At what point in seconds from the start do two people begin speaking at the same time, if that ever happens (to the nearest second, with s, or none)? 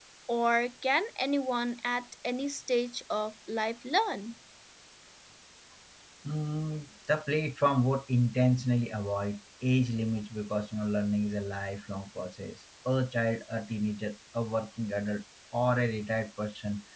none